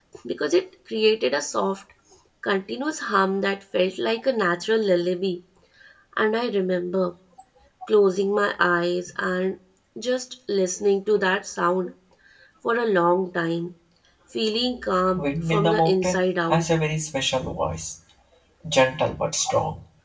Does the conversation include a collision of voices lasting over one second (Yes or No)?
Yes